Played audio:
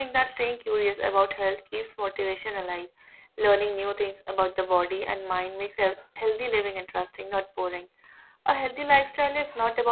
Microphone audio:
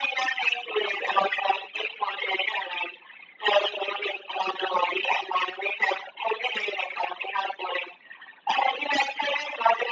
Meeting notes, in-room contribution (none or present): none